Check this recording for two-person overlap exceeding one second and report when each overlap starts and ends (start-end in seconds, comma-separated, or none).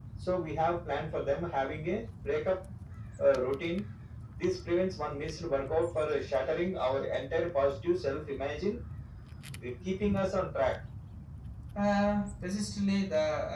none